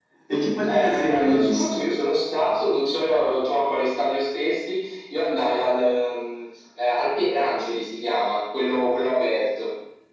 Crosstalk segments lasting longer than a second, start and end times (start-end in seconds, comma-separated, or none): 0.7-1.9